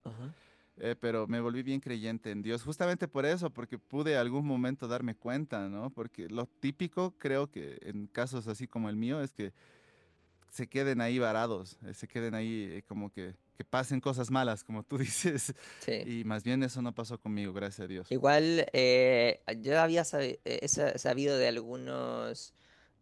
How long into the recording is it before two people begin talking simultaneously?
none

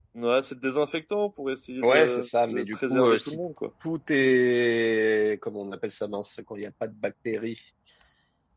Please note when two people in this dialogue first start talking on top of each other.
1.8 s

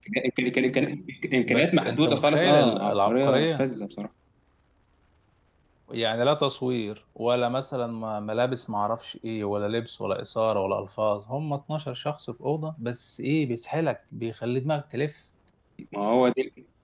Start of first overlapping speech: 1.5 s

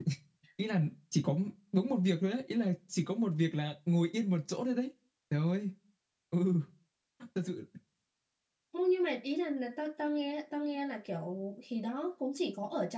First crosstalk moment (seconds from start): none

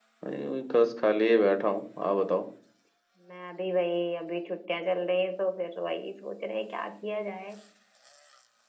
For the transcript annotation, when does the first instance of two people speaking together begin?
none

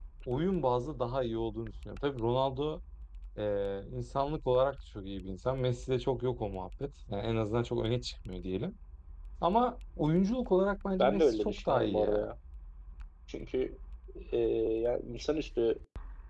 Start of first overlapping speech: 11.0 s

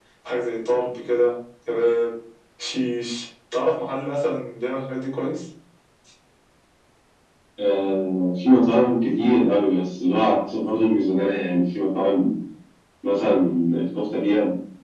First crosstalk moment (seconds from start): none

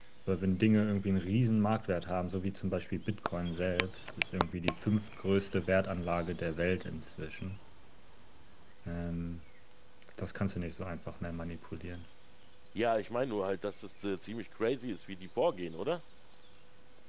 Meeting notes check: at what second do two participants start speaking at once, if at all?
none

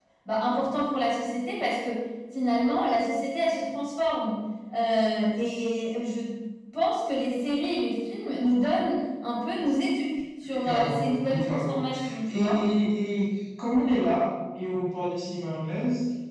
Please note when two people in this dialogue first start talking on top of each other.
10.4 s

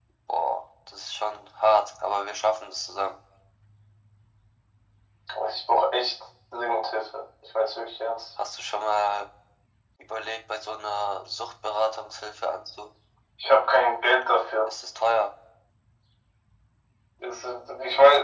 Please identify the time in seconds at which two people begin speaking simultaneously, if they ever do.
none

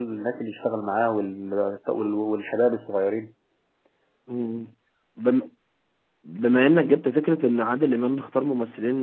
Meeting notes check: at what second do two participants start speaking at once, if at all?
none

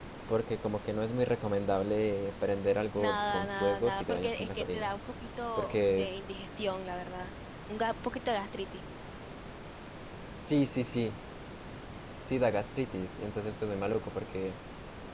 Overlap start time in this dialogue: 3.0 s

